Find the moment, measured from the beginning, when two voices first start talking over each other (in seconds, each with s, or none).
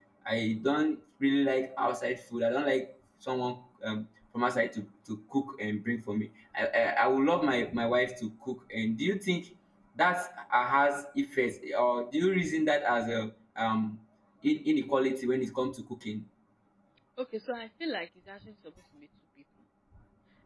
none